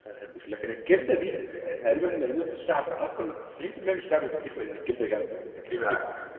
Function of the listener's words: listening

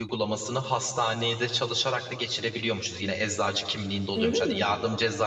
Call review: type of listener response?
listening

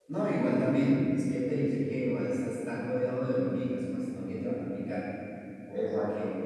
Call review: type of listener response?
listening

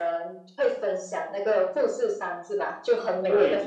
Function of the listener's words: taking over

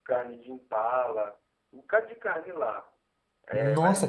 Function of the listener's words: taking over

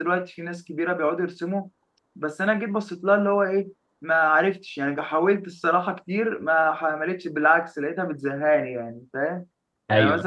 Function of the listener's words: listening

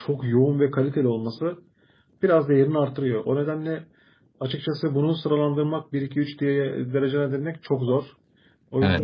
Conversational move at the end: taking over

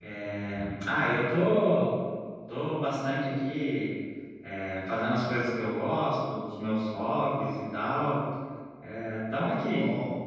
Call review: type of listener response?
taking over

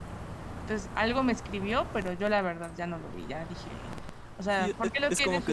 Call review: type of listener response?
taking over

